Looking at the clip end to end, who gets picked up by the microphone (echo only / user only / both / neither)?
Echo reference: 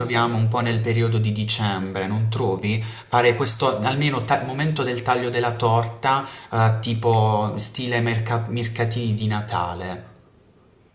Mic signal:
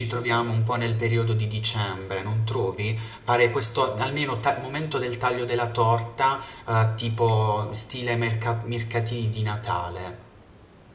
echo only